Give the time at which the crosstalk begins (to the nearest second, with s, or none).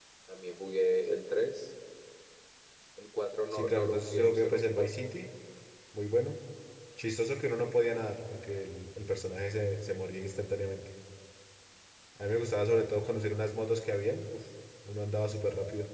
4 s